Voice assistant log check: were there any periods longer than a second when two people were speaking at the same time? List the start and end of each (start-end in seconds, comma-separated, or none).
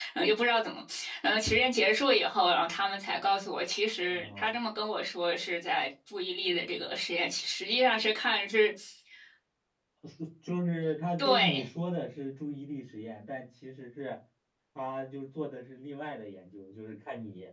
none